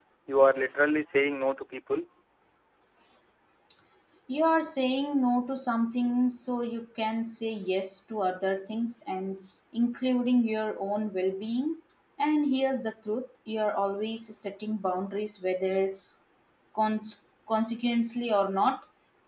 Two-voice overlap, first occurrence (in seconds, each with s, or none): none